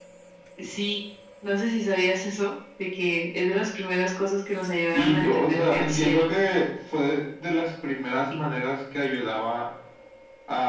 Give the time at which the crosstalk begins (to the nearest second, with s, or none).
5 s